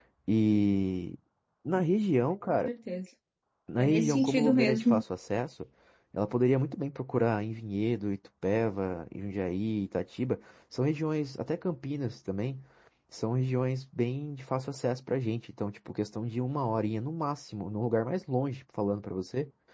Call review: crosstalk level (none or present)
present